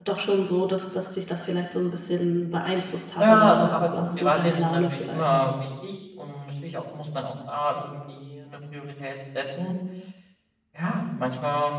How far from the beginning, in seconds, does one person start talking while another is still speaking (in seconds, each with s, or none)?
3.2 s